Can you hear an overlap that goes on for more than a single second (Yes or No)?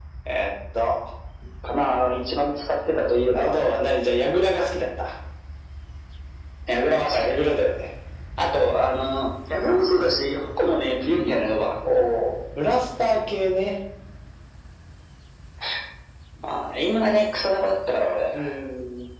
No